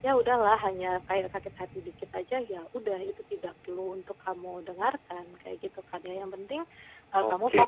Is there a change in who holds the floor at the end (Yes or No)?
No